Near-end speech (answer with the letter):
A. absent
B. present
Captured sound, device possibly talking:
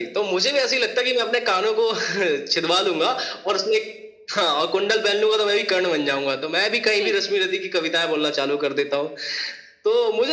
B